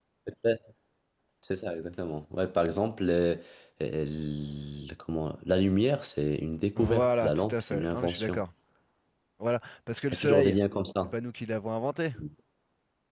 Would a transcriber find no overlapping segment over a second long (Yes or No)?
No